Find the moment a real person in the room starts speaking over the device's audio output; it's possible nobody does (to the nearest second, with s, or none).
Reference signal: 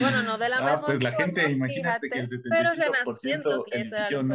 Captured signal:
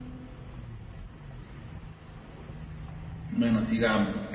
3 s